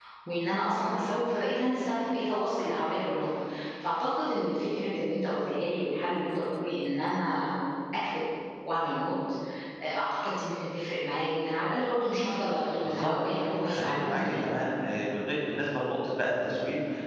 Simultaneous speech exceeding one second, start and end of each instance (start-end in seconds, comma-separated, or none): 12.8-14.4